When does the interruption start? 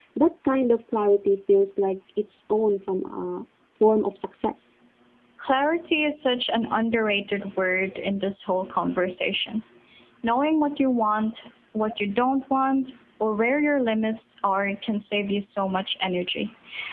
none

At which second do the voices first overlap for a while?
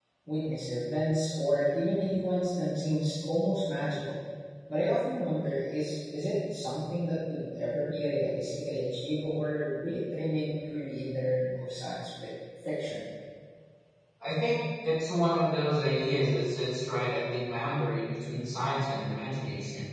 none

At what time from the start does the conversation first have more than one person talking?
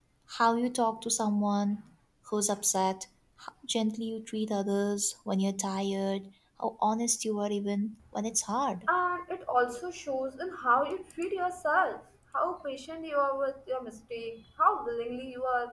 none

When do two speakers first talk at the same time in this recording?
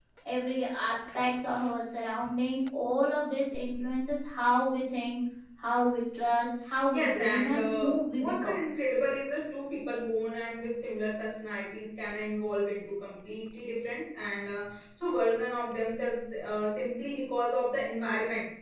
6.9 s

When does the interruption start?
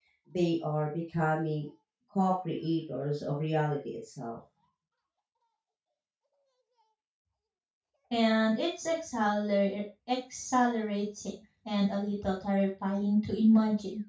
none

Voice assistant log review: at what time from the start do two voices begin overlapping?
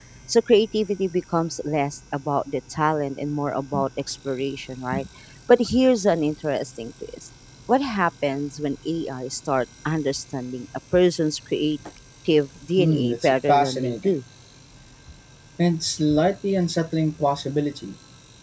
12.8 s

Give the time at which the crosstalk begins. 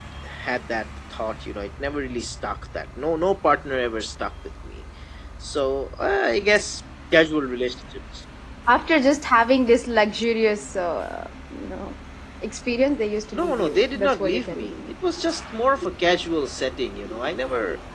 13.3 s

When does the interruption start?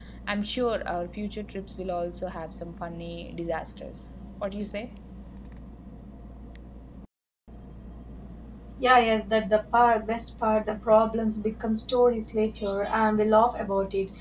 none

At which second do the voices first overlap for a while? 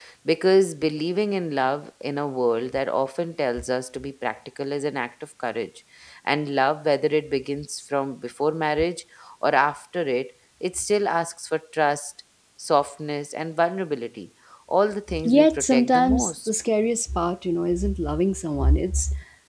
15.1 s

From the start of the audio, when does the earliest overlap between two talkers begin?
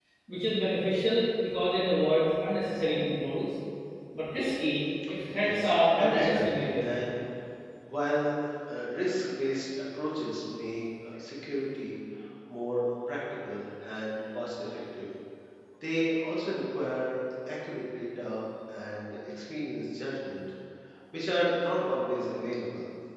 5.4 s

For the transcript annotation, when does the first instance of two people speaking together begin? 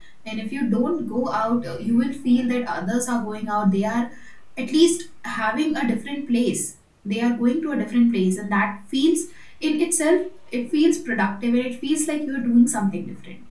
none

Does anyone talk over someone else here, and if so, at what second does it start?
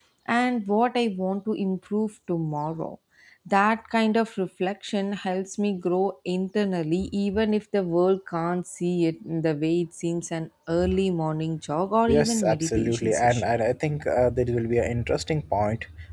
12.1 s

